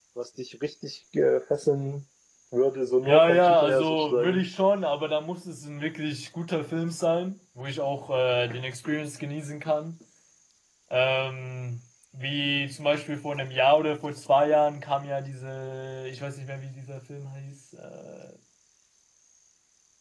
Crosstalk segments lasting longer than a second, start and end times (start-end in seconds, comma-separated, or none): 3.0-4.5